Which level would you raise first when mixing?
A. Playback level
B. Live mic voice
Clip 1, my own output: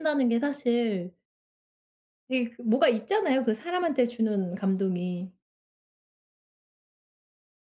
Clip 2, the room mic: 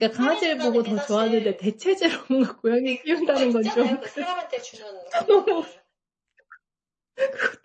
A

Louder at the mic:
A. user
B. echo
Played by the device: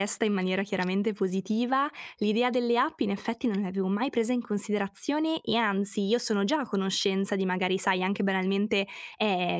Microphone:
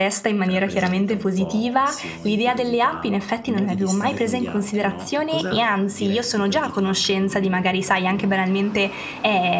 B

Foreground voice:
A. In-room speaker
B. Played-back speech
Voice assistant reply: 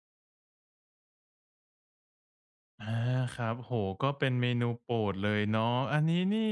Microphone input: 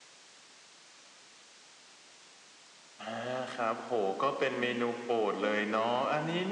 B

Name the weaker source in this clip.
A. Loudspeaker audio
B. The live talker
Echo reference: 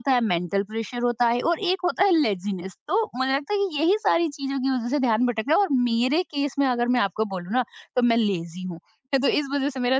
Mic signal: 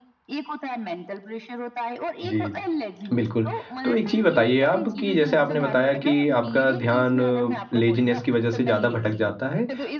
A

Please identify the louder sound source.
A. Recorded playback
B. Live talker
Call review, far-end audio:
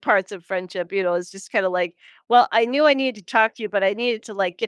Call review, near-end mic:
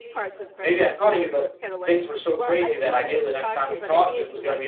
B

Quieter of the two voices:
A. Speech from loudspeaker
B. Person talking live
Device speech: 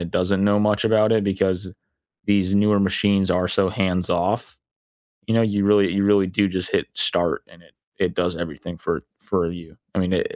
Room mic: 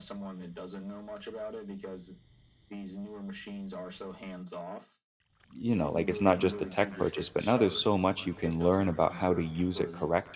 A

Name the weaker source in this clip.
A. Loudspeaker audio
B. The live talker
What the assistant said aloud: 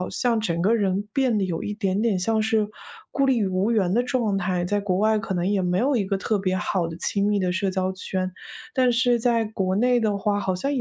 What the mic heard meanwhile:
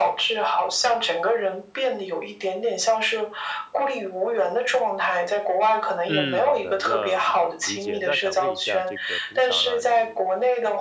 B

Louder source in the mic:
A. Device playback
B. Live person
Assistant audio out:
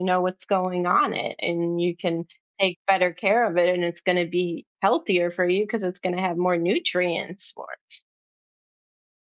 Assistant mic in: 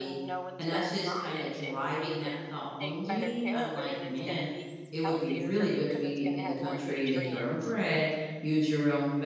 B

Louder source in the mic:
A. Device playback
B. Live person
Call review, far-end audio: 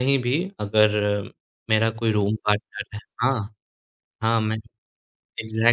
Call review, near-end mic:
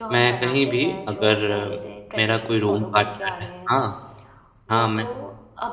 A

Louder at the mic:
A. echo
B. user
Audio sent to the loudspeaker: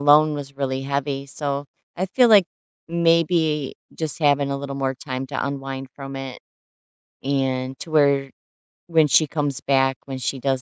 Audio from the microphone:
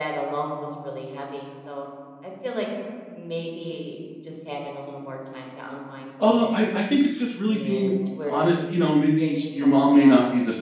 B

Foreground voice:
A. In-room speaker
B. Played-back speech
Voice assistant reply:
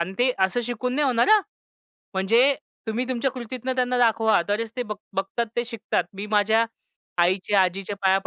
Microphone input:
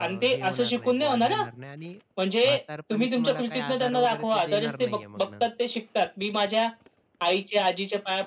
B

